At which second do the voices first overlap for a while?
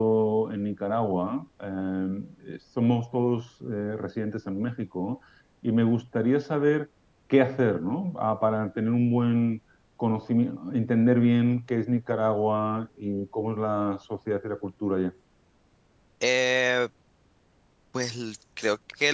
none

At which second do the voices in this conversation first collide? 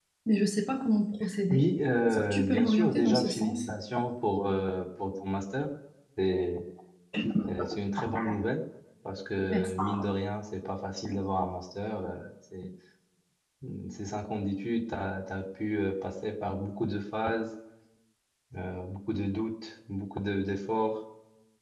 2.0 s

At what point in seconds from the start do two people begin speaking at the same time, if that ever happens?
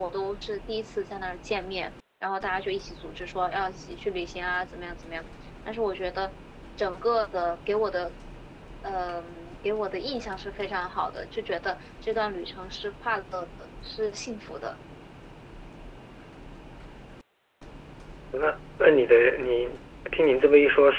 none

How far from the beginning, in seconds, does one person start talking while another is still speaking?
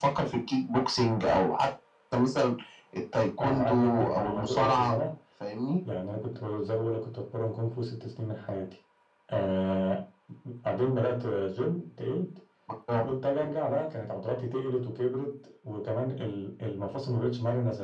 3.4 s

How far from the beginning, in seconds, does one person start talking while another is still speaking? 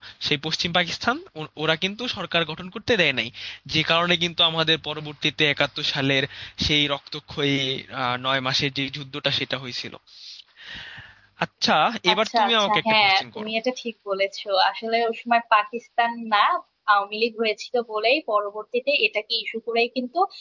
12.1 s

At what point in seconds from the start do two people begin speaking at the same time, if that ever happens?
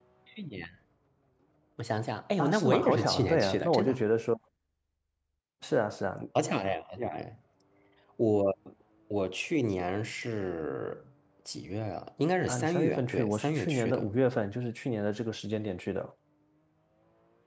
2.4 s

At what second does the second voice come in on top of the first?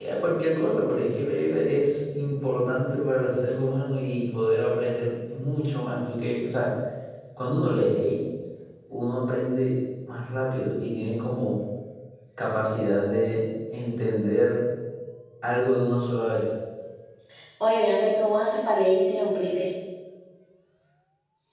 none

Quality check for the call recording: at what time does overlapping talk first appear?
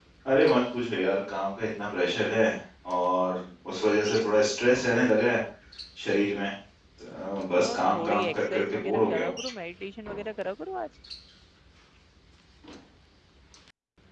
7.6 s

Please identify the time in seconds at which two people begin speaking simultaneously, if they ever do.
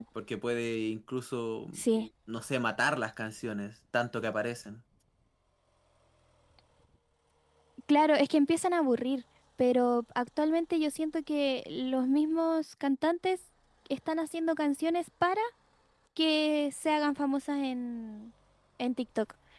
none

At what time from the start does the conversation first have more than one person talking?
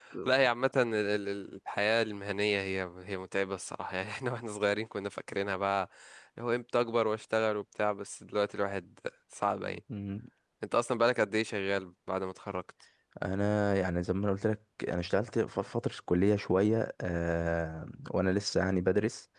none

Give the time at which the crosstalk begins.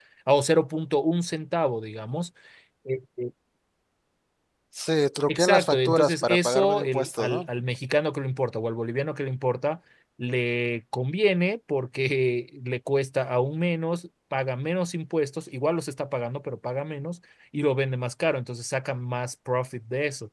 5.3 s

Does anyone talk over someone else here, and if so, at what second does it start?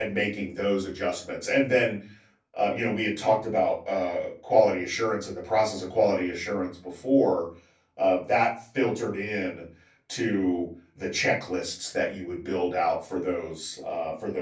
none

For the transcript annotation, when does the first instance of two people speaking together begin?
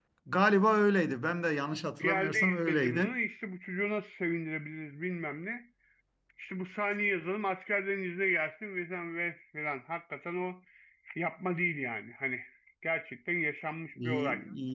1.9 s

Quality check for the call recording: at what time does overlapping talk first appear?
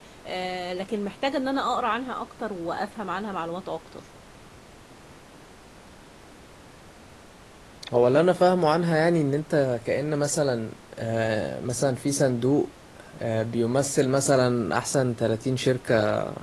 none

